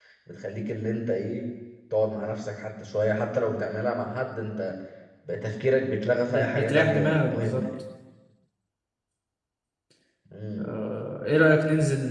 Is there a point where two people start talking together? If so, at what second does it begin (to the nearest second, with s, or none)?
6 s